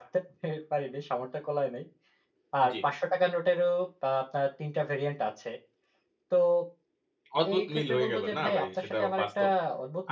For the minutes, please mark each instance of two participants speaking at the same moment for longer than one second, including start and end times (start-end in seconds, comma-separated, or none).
7.5-9.4